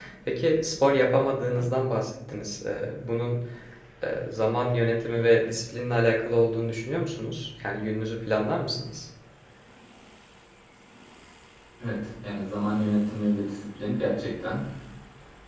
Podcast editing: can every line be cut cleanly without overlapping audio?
Yes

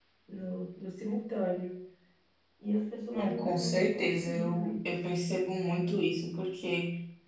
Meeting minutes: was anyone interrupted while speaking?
Yes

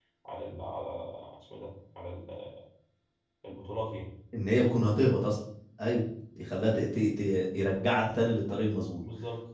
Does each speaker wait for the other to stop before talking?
Yes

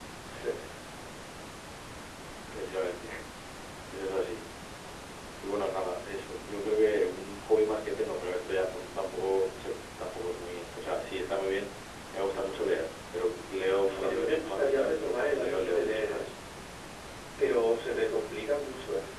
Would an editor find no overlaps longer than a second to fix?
No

